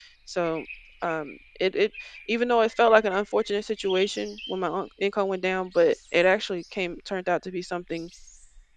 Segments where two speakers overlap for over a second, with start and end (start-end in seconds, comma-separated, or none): none